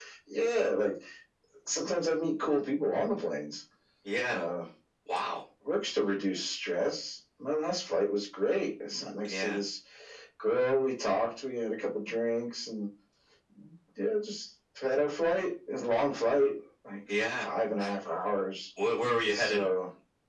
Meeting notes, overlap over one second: none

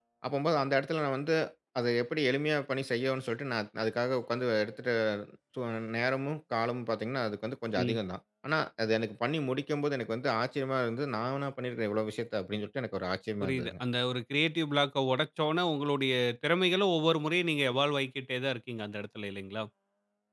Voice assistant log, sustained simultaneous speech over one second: none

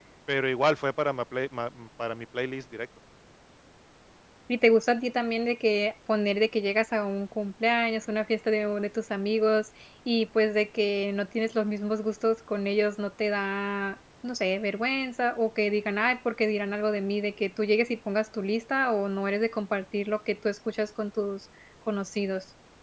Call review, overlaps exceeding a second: none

